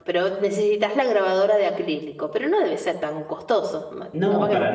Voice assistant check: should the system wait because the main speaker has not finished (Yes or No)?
No